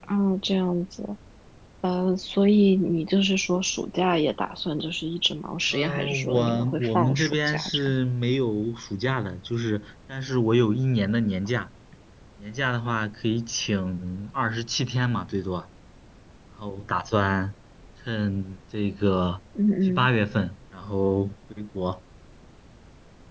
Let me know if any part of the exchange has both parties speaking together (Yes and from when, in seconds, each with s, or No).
Yes, from 5.7 s